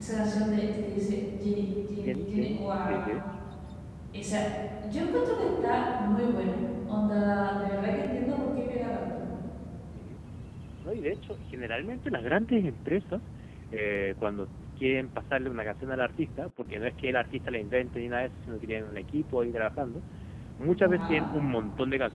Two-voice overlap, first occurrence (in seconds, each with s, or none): 2.0 s